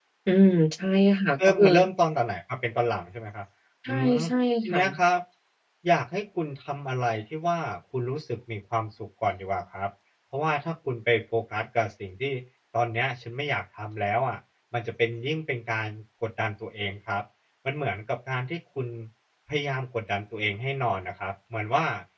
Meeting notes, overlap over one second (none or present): none